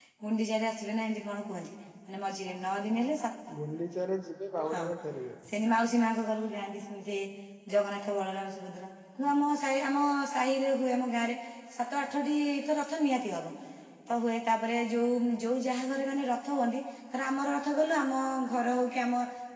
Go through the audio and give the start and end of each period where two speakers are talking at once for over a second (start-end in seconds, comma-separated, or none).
none